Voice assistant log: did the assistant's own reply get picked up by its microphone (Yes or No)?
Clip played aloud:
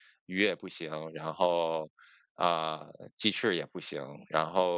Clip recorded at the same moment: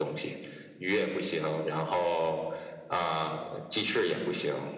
Yes